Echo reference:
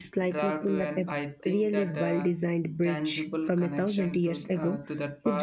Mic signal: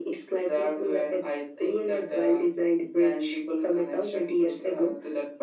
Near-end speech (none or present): none